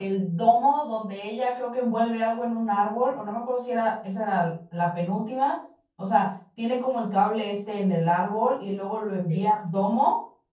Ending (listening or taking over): listening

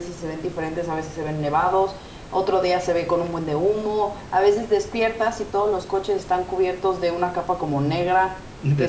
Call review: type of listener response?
listening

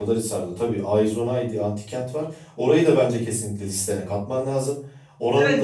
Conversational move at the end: taking over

